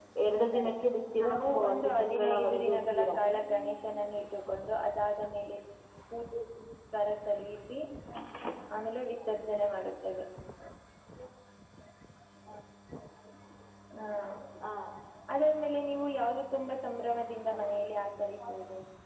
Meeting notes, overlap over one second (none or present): present